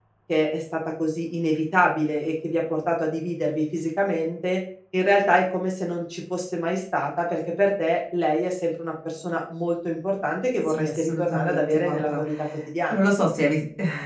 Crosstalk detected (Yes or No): Yes